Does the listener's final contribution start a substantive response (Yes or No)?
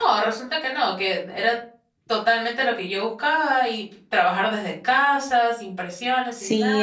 Yes